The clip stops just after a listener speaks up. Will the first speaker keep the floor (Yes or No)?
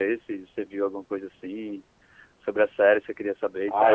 No